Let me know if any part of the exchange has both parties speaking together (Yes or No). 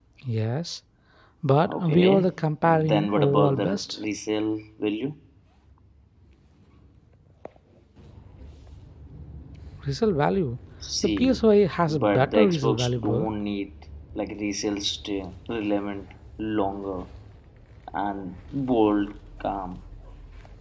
Yes